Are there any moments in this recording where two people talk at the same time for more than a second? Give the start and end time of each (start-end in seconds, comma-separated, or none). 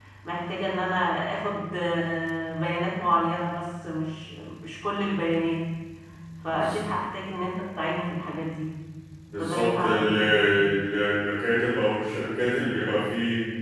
9.4-10.7